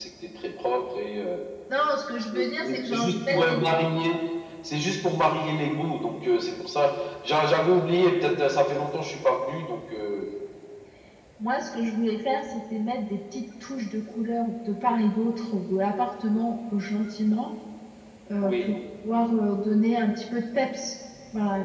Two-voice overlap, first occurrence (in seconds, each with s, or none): 2.3 s